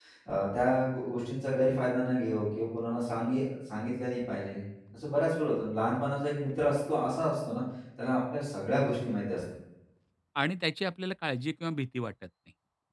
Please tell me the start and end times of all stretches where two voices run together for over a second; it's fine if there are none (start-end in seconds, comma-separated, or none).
none